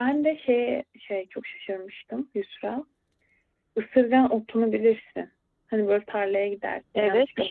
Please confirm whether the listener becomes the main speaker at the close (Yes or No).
Yes